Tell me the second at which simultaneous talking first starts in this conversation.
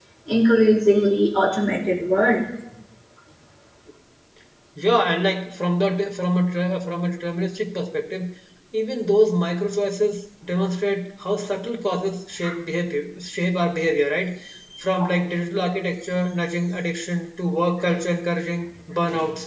none

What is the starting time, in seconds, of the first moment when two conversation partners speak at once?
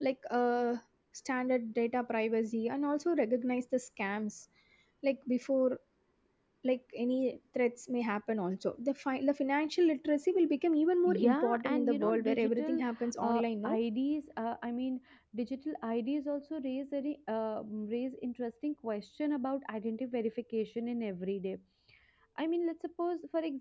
11.0 s

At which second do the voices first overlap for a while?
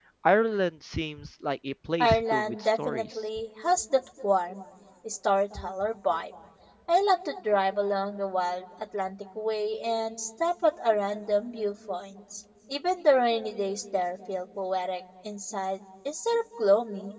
2.0 s

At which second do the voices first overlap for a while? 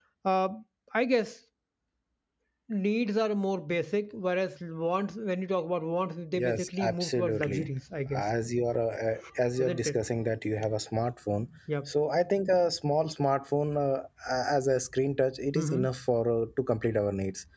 6.4 s

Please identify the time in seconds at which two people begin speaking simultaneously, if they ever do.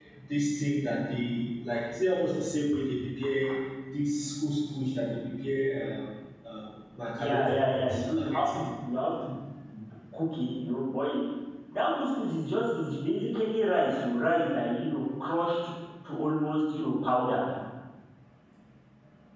7.2 s

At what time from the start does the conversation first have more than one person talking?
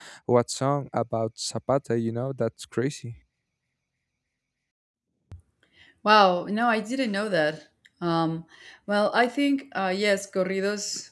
none

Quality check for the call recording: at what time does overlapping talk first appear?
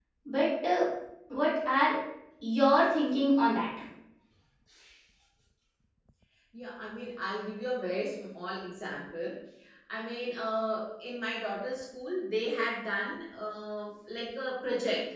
none

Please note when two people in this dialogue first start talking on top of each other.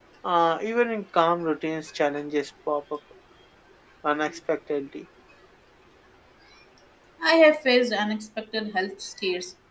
none

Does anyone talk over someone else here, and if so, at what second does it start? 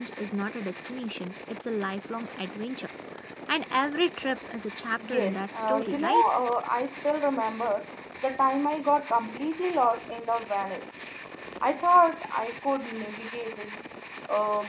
5.0 s

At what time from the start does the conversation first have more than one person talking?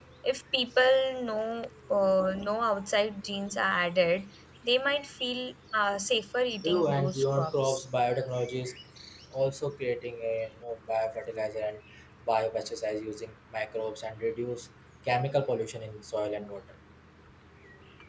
6.6 s

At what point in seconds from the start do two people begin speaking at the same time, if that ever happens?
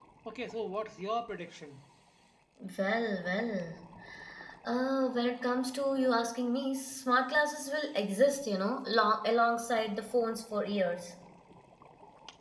none

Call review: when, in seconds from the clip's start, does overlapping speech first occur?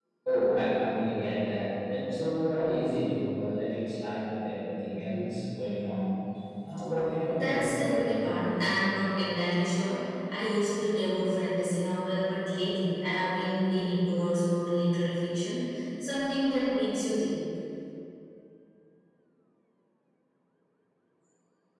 7.3 s

